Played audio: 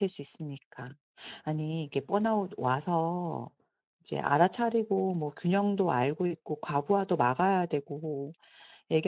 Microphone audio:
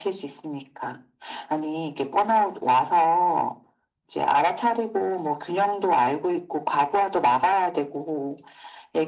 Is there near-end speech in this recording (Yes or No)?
No